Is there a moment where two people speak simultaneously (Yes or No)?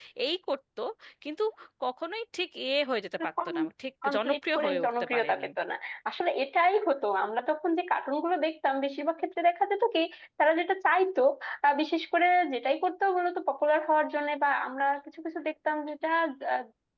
Yes